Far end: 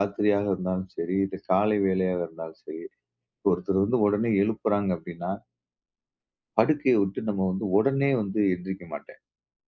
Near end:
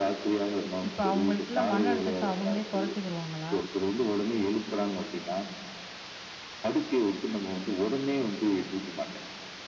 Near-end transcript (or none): இப்ப அவங்களுக்குள்ள மன அழுத்தத்த அவங்களே குறைச்சுக்குருவாங்களா?